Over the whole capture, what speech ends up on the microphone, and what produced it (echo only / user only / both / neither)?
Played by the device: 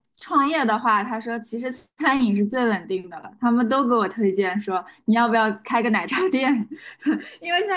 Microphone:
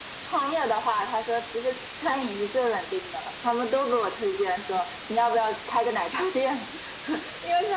echo only